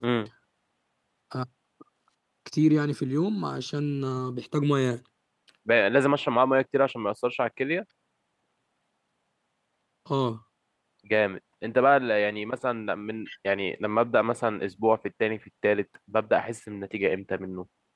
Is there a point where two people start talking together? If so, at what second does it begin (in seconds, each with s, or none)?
none